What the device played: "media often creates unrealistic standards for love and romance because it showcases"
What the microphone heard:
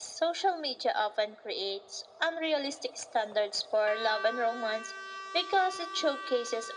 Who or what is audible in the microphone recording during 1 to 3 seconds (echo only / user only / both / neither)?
echo only